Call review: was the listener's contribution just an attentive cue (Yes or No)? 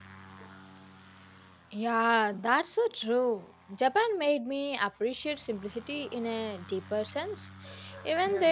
Yes